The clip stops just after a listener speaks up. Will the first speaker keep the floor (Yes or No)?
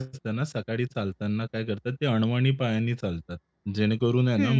Yes